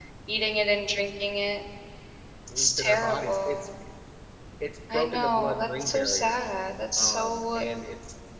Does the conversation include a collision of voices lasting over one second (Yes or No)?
Yes